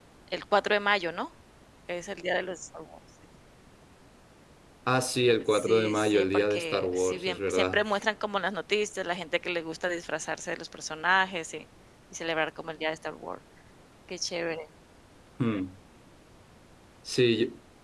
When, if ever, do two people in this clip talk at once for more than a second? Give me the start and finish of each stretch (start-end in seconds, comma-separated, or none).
5.5-7.8